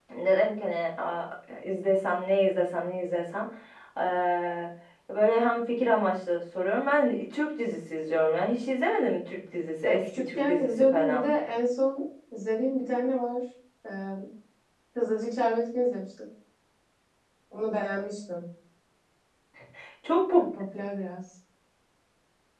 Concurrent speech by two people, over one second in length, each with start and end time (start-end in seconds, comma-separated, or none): 9.8-11.2